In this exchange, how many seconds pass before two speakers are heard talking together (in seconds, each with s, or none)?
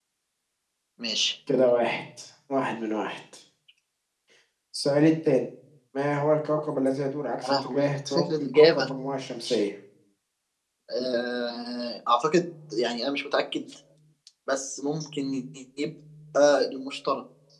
7.4 s